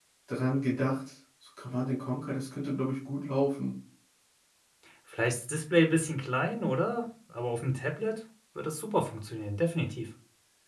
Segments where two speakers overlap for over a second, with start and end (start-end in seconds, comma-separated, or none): none